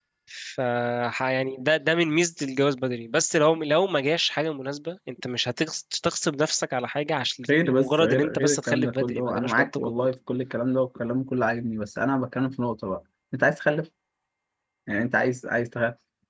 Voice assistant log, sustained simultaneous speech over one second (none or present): present